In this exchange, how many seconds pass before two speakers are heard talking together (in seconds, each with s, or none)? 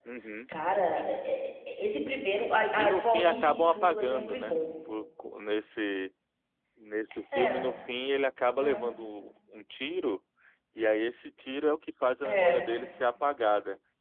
2.8 s